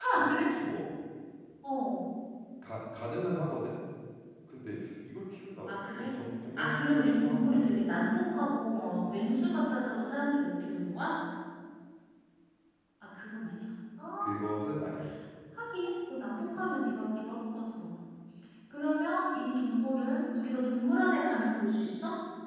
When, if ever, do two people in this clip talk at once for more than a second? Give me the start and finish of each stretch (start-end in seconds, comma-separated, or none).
6.6-7.8